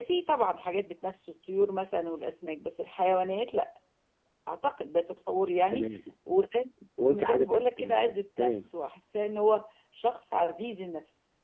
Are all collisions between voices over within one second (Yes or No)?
No